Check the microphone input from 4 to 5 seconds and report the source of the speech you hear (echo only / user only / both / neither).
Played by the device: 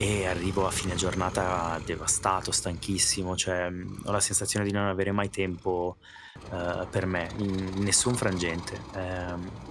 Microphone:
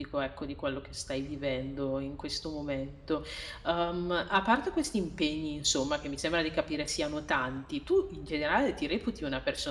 user only